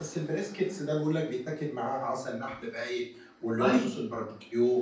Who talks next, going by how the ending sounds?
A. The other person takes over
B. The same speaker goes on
B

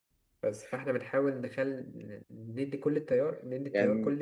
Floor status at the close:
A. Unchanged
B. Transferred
A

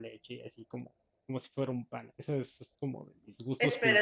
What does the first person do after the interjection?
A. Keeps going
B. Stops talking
B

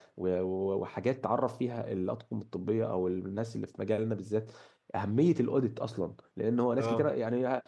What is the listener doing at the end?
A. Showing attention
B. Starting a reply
A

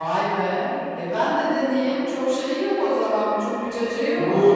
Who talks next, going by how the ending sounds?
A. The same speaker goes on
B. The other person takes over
B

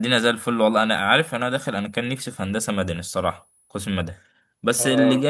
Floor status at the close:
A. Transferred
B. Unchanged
B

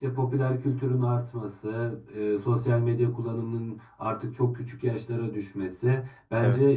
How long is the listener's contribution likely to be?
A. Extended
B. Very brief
B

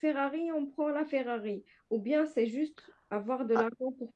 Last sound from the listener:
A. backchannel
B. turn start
B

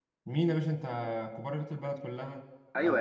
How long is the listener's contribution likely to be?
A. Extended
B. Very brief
A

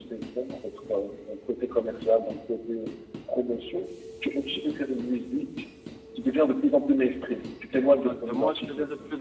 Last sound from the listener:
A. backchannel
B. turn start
B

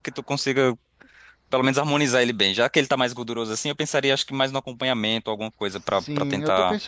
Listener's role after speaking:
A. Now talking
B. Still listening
A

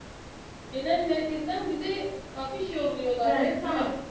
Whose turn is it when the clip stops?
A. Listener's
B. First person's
A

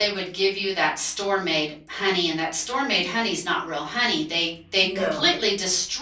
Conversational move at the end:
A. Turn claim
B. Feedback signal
B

